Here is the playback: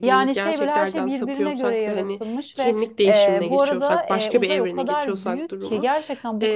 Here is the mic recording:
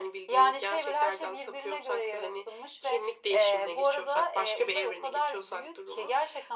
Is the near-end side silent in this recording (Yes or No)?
Yes